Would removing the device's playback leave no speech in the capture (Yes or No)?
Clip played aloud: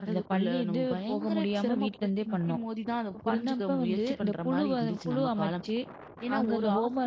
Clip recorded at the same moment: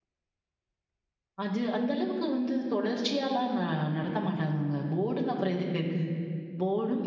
No